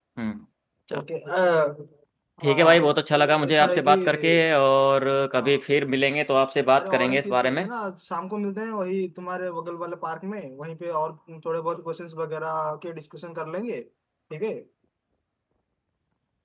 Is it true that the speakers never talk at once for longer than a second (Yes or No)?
No